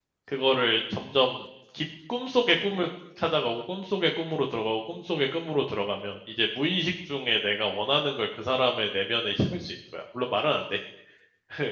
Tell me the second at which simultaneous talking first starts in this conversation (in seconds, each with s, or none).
none